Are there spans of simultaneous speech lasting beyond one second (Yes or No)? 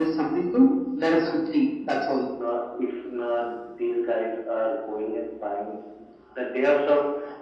No